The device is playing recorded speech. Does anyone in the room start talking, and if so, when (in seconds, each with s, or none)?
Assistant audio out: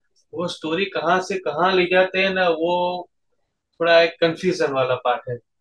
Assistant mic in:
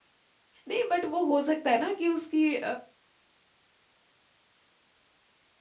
0.7 s